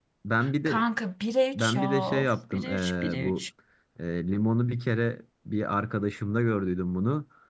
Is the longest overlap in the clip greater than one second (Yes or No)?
Yes